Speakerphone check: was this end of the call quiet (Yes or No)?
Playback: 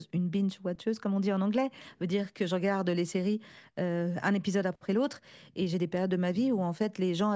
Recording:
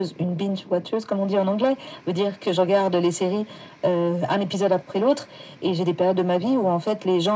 Yes